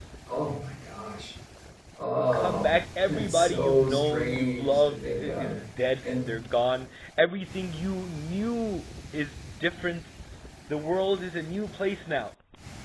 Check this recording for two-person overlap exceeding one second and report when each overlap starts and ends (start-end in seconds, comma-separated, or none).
2.1-5.6